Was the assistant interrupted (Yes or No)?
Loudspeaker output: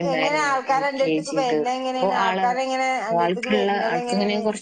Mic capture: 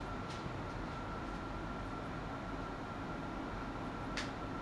No